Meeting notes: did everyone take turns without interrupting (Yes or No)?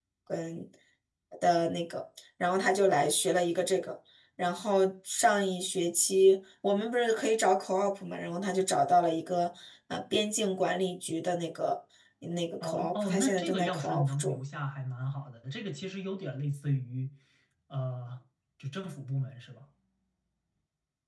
No